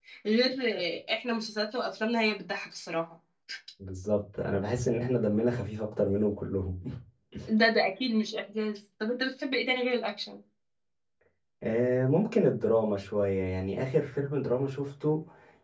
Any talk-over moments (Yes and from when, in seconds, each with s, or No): No